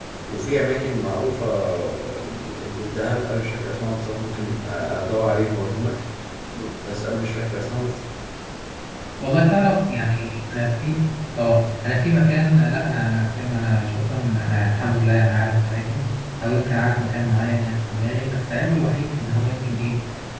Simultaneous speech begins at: none

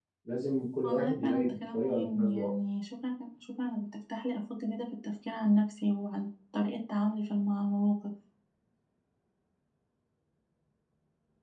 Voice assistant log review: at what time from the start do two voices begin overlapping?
1 s

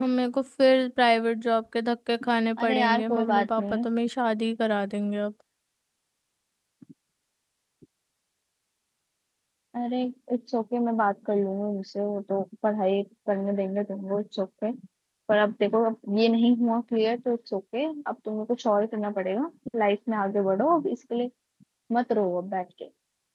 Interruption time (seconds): 3 s

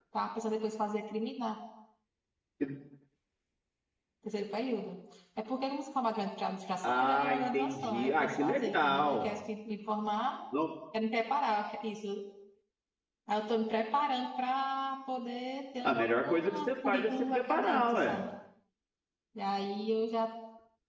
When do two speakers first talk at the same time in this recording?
7 s

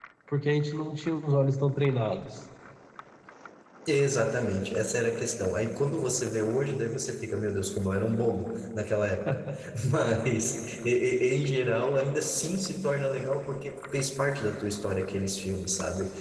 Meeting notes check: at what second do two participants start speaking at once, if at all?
none

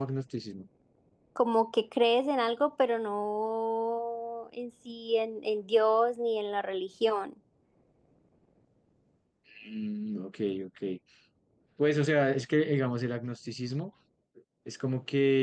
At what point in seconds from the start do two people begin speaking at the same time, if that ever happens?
none

